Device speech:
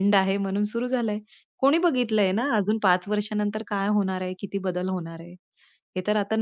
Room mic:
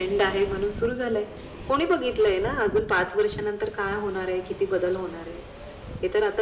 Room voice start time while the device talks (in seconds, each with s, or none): none